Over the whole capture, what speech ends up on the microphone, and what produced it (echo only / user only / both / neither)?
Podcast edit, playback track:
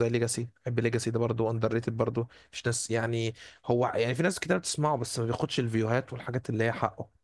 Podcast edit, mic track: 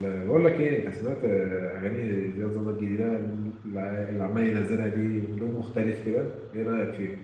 user only